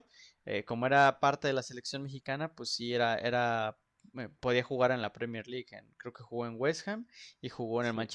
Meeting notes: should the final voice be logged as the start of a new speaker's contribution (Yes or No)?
Yes